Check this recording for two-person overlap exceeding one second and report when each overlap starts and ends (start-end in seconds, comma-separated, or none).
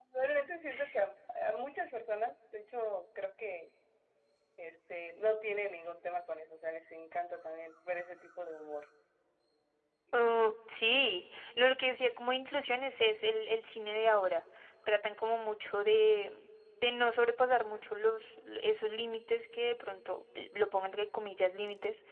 none